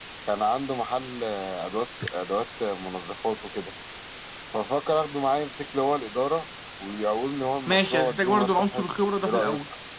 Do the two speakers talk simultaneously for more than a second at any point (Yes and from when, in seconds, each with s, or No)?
Yes, from 7.7 s